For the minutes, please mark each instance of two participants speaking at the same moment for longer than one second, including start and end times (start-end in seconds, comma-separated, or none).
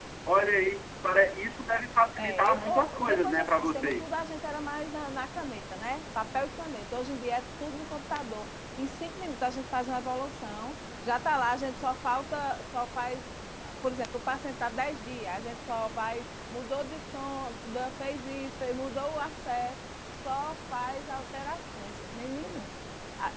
2.2-4.1